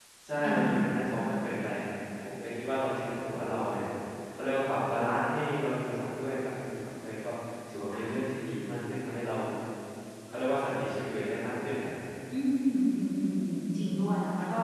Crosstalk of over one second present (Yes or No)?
No